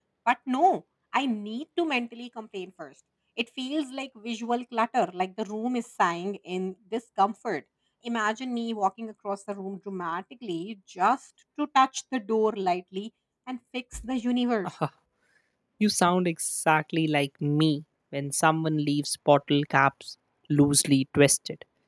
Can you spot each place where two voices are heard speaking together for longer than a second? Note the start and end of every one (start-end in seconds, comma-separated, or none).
none